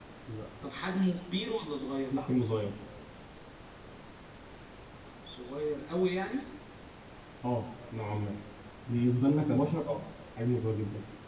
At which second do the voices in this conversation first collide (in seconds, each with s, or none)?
none